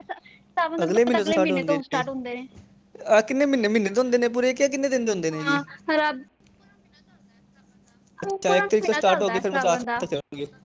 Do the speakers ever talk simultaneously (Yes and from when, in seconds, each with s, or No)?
Yes, from 0.8 s